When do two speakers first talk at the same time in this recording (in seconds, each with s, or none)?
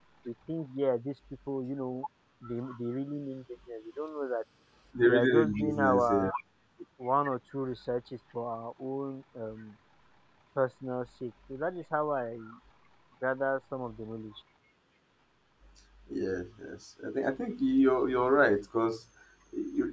5.0 s